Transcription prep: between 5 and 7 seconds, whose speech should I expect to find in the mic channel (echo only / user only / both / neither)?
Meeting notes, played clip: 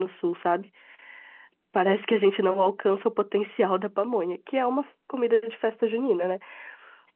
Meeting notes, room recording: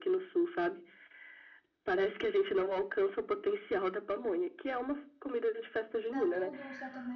both